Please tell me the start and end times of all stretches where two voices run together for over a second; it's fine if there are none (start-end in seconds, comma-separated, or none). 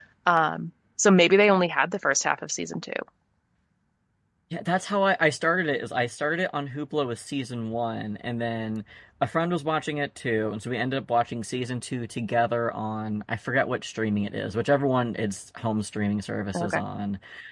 none